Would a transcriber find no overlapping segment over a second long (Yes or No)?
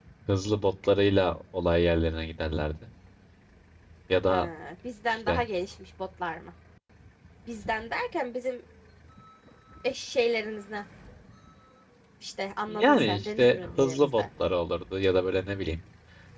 No